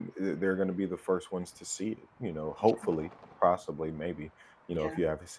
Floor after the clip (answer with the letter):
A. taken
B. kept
B